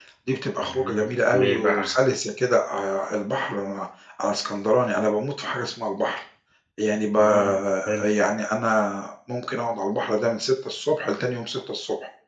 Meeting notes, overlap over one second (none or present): present